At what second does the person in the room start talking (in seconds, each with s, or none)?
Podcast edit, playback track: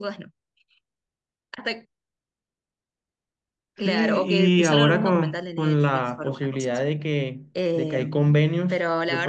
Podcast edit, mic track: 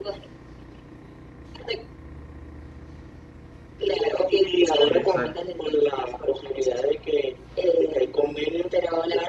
4.8 s